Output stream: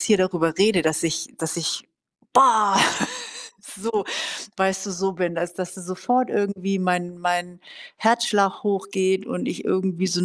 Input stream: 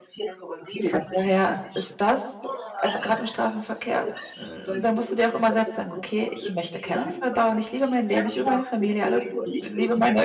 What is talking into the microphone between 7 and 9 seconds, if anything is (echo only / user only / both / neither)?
both